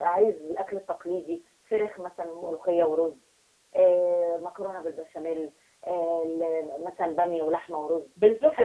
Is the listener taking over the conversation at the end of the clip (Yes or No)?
Yes